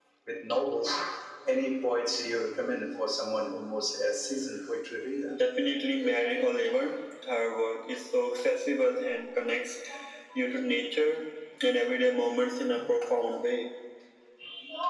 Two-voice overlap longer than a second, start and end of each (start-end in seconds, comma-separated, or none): none